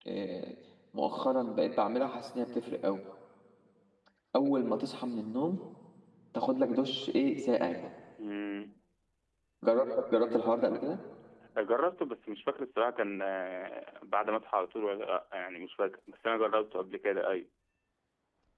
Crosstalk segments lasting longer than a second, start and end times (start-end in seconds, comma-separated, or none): none